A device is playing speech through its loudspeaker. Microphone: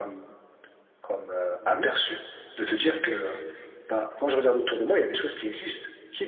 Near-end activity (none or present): present